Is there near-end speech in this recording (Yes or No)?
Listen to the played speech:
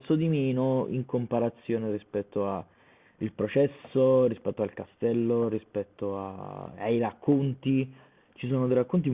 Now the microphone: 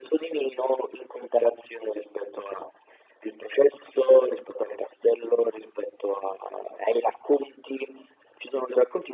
No